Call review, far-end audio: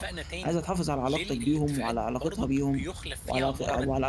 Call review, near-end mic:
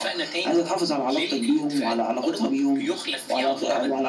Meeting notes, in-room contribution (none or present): none